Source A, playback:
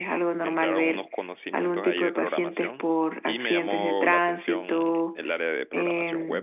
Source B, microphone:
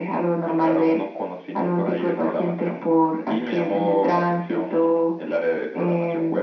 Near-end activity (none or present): none